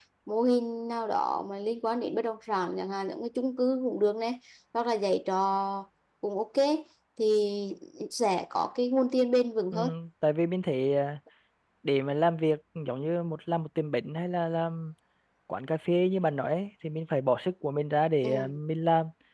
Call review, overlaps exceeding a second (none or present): none